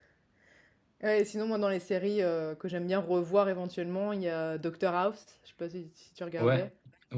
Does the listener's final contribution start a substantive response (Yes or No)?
Yes